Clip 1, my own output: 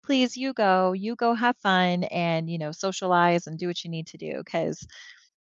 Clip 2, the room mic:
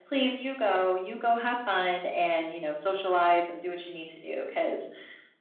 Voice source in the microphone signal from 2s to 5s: echo only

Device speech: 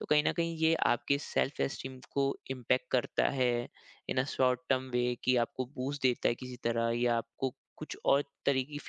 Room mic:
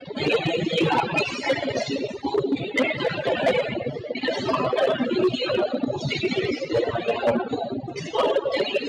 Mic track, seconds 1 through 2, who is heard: echo only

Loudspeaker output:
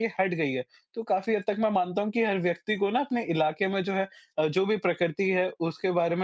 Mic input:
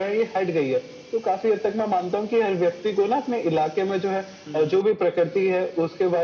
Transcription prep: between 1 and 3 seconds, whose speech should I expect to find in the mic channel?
echo only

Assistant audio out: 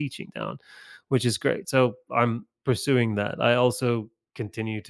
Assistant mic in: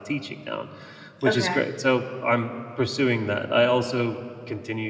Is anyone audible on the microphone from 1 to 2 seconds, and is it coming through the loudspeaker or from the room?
both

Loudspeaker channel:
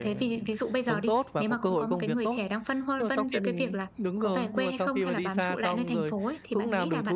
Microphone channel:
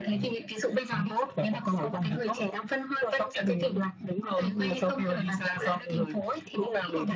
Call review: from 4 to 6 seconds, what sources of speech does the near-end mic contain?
echo only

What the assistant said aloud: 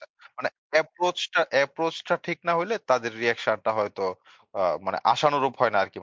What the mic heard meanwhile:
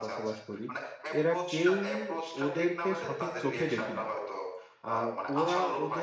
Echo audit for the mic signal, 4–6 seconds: both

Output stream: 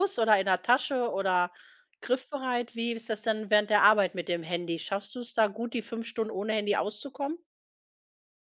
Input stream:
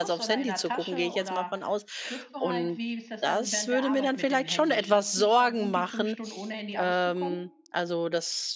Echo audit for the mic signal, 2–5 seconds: both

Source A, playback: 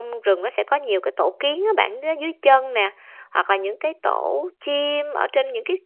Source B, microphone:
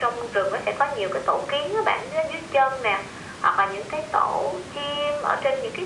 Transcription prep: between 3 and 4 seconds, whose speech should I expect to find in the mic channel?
echo only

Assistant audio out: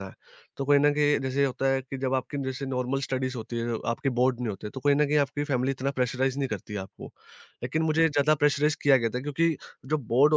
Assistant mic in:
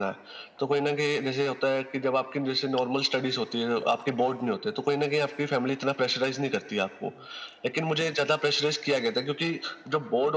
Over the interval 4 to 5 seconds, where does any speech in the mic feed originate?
echo only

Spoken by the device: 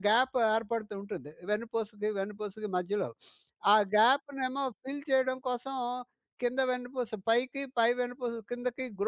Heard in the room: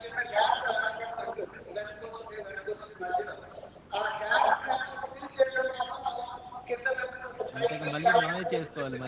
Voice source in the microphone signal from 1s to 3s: echo only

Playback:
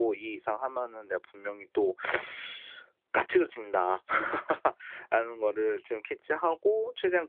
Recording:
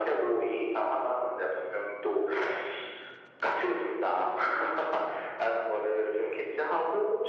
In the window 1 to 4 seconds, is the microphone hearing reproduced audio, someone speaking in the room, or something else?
echo only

